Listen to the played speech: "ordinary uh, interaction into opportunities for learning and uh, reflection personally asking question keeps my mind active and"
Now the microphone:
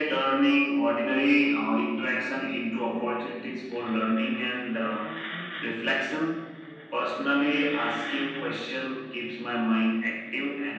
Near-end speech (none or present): none